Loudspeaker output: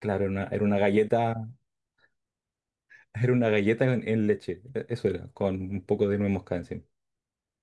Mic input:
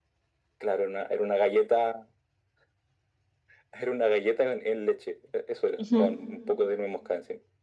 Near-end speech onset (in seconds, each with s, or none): 5.8 s